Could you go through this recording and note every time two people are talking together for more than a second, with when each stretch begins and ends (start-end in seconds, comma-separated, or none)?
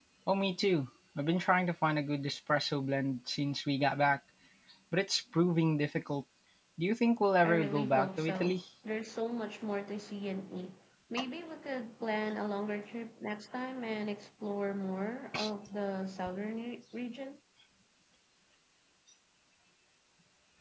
7.4-8.6